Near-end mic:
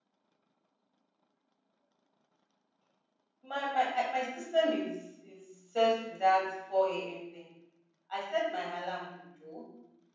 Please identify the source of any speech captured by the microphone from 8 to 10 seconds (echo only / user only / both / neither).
user only